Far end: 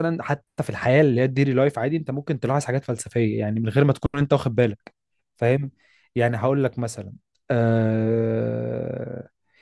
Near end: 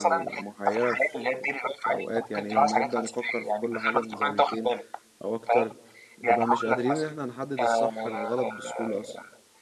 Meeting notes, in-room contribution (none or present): present